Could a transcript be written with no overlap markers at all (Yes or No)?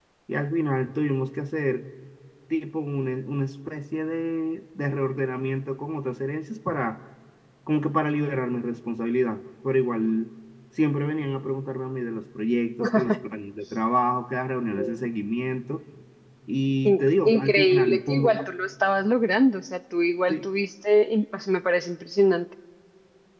No